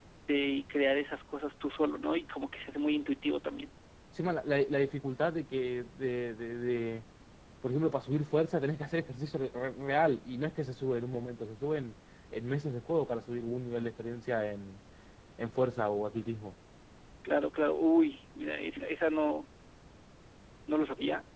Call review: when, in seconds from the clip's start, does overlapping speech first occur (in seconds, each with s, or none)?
none